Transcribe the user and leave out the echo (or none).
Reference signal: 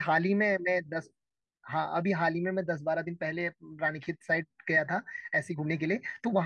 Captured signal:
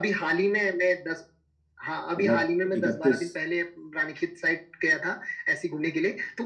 मतलब इकतीस